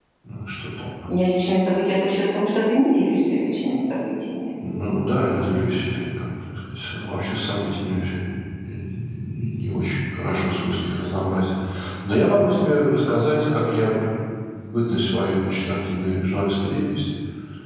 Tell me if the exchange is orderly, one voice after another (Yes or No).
Yes